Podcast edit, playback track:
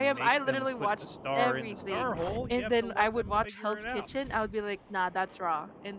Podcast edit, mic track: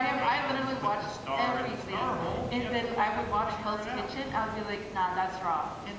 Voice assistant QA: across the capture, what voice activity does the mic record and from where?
echo only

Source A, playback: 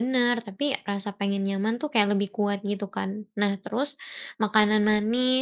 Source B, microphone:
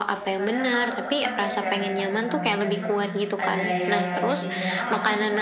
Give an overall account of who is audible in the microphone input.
both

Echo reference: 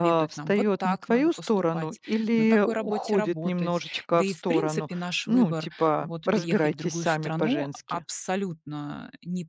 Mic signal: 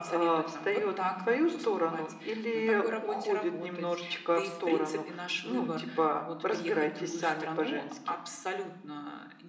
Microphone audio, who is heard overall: echo only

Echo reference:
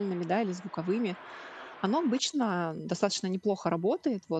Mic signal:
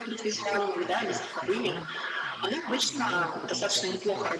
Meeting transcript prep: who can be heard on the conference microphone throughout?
both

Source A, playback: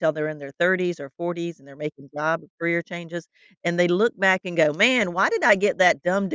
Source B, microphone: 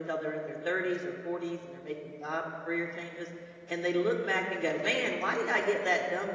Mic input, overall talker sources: echo only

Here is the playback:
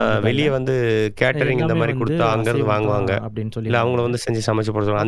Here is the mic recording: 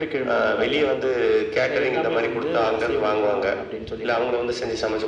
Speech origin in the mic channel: echo only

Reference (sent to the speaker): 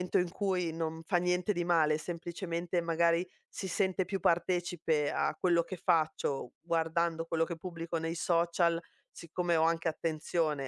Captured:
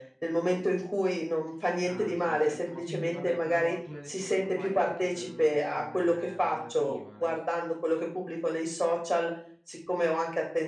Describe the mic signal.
both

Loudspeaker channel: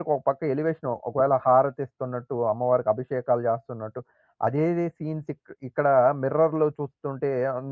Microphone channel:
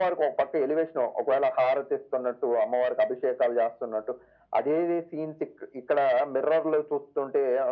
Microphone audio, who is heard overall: echo only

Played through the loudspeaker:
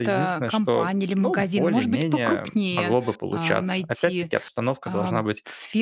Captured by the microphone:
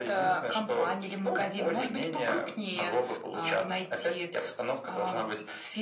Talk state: echo only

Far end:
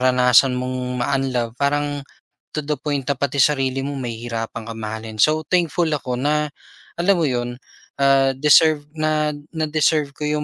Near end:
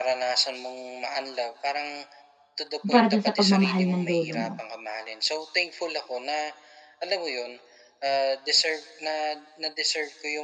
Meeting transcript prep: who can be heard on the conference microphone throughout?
both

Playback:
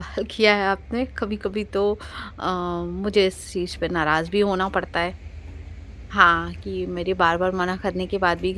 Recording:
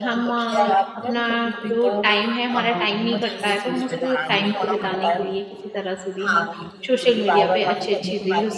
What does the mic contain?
both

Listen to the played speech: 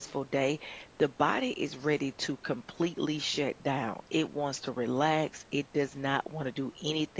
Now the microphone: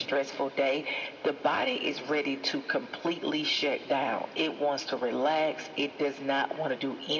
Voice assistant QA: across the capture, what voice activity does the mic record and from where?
echo only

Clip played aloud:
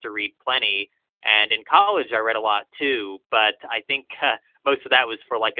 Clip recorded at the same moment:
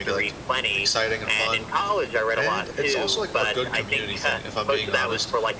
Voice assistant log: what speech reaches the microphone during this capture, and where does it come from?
both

